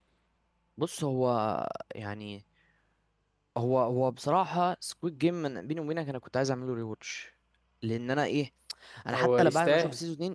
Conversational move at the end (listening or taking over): listening